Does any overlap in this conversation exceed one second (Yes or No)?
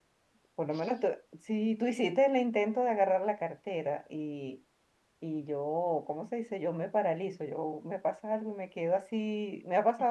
No